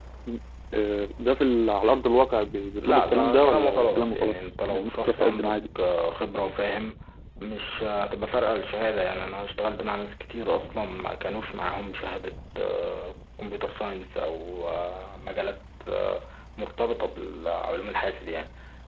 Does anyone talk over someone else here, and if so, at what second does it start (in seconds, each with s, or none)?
2.8 s